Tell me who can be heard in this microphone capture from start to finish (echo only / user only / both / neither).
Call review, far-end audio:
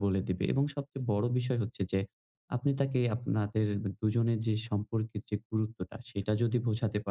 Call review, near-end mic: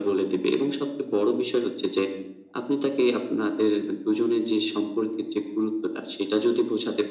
echo only